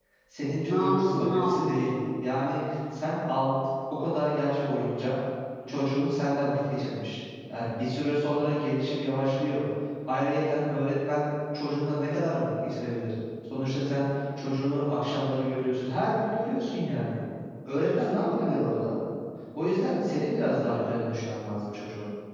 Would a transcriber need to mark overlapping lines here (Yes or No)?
Yes